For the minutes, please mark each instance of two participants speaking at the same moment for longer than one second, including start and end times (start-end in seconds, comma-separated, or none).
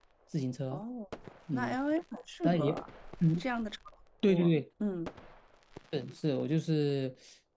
none